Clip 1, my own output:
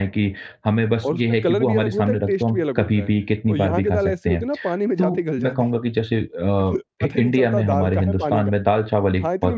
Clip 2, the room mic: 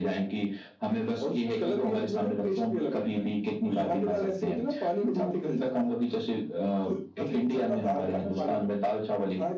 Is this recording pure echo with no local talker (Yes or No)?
Yes